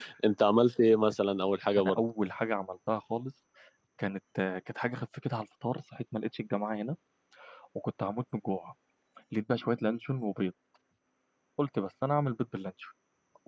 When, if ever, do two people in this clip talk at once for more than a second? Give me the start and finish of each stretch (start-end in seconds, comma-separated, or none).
none